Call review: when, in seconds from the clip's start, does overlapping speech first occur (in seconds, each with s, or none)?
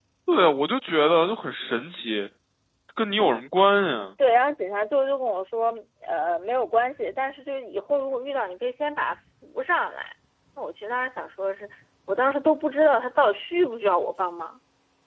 none